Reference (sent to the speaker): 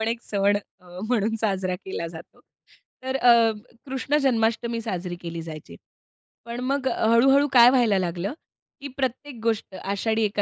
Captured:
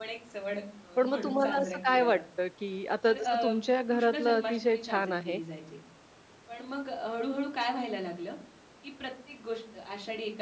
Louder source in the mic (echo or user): user